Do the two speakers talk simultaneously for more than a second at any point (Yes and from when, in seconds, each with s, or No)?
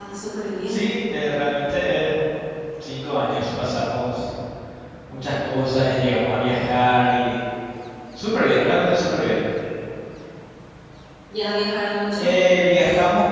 No